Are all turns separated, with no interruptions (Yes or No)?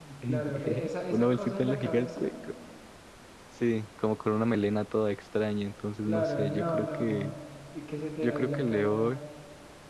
No